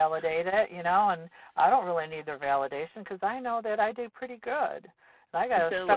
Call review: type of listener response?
listening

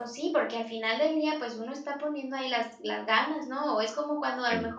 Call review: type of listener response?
listening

